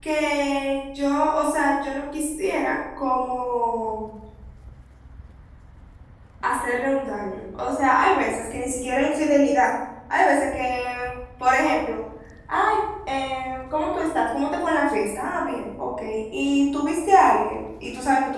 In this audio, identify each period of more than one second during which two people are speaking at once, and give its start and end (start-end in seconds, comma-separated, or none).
none